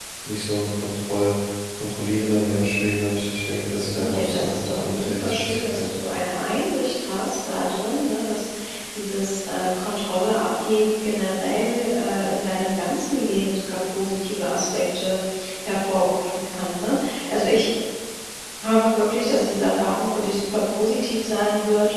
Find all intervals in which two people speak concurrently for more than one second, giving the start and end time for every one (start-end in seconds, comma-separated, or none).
4.0-5.9